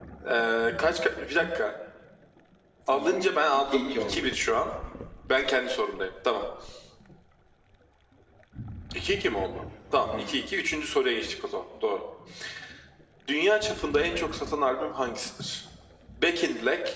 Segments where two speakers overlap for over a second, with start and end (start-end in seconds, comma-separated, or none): 2.9-4.2